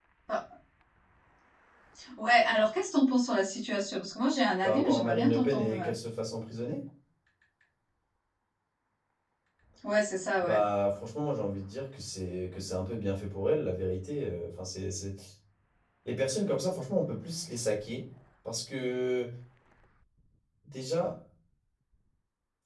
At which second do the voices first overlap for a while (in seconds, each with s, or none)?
4.6 s